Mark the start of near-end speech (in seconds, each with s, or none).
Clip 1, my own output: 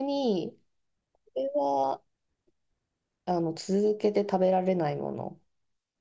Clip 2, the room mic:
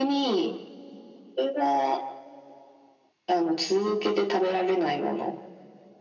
none